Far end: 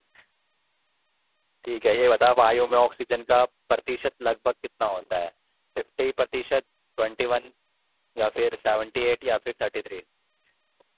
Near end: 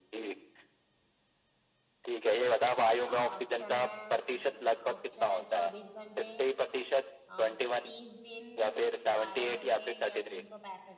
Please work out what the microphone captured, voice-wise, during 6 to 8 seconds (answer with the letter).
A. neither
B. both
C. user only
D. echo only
B